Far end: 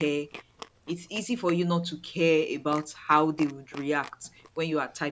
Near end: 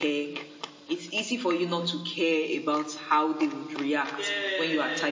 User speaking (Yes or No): Yes